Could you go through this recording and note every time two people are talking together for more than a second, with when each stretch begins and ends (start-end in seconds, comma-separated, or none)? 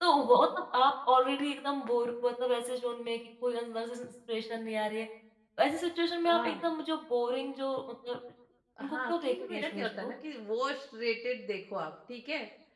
8.8-10.1